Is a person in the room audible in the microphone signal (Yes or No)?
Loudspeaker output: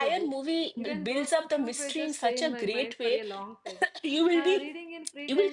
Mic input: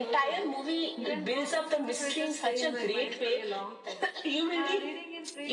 No